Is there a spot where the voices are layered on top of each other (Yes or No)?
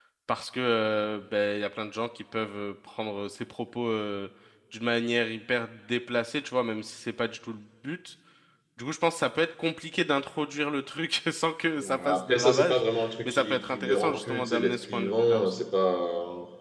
Yes